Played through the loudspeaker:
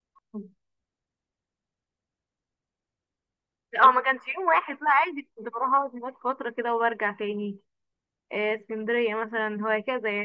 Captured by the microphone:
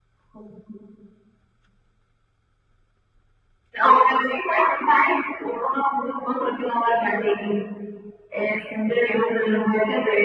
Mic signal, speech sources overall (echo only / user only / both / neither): echo only